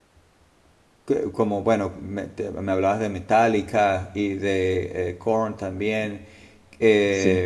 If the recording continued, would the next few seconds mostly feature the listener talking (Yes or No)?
Yes